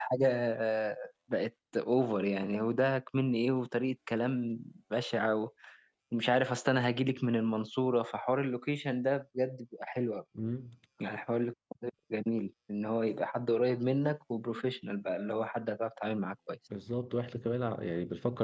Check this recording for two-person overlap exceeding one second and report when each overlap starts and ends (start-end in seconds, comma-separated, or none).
none